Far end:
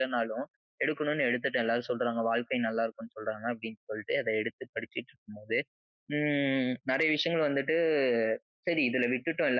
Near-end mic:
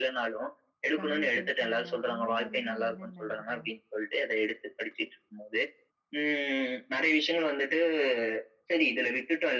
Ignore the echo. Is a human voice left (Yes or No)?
Yes